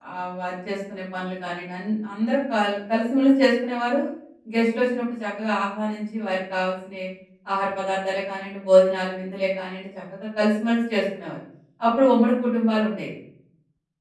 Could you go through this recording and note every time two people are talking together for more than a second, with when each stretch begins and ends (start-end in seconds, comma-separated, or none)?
none